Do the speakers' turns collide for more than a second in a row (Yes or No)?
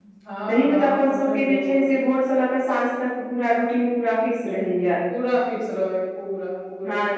Yes